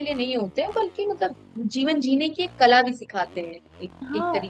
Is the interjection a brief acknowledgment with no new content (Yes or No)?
No